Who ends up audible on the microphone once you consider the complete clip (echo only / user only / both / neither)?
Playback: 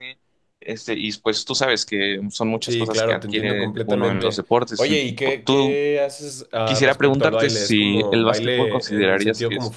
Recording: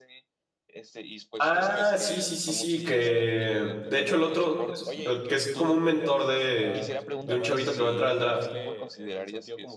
both